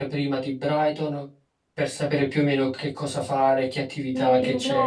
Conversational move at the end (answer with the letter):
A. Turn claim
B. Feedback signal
A